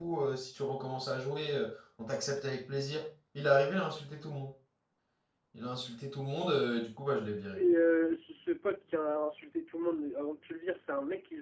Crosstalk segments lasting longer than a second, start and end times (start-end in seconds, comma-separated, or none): none